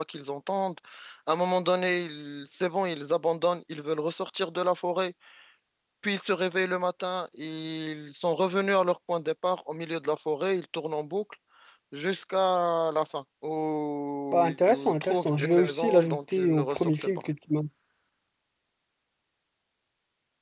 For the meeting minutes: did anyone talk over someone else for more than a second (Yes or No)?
Yes